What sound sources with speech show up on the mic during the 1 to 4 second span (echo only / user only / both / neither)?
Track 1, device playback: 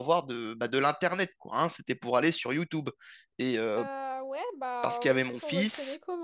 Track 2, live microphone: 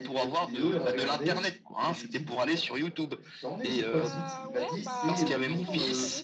both